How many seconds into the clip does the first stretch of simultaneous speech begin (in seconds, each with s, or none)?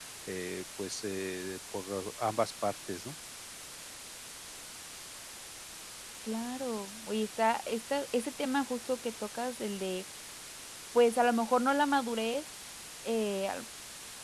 none